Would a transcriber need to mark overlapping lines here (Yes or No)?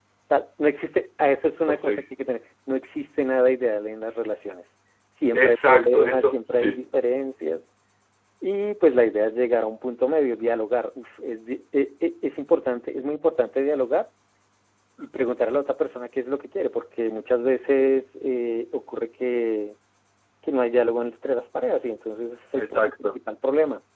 Yes